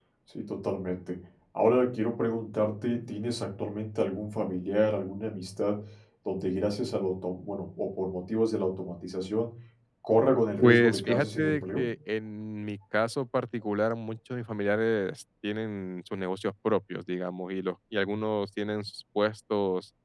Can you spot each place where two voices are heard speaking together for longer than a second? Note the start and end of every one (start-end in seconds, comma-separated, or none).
10.6-11.8